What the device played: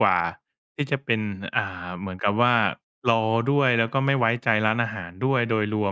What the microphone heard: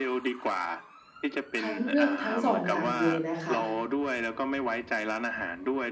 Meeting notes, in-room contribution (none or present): present